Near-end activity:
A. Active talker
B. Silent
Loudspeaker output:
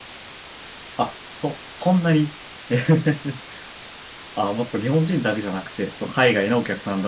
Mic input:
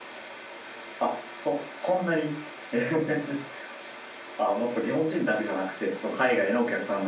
B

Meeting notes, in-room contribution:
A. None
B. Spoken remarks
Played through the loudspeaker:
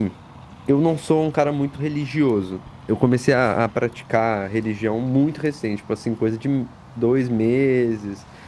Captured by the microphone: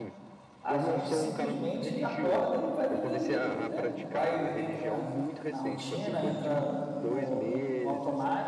B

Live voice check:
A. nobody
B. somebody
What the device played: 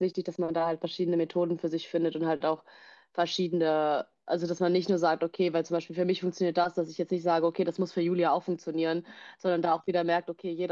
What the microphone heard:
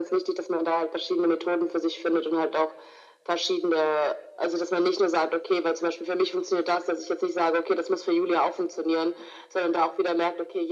A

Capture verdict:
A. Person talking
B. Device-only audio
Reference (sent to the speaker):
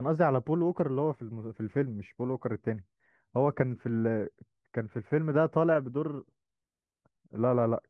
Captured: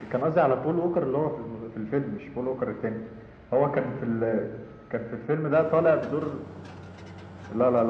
B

